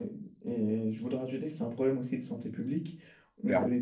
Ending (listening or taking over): listening